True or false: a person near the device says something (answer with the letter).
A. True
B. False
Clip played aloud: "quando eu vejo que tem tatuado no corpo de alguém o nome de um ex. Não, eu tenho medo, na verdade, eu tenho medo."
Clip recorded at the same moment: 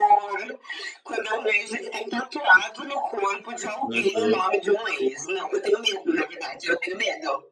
A